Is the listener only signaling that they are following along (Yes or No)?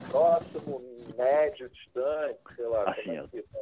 No